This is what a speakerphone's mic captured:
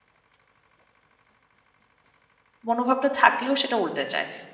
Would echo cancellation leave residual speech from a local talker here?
Yes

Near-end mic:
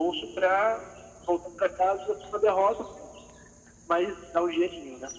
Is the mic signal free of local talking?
Yes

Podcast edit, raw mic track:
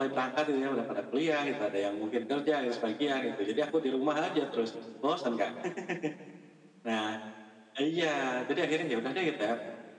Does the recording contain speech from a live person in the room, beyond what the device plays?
No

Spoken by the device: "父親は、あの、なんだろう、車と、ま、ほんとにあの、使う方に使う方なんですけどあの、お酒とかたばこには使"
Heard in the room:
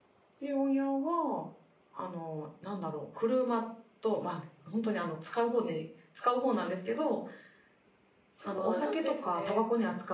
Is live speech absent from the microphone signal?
No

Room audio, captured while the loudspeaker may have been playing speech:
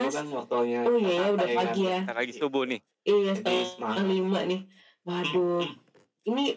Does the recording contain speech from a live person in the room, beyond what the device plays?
Yes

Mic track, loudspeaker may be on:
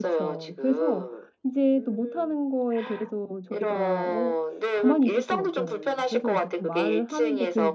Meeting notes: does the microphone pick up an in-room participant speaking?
Yes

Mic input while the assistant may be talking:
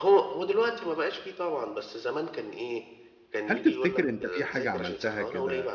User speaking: Yes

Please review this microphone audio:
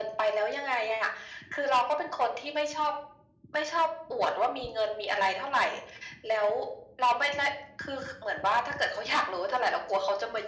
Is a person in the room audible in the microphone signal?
No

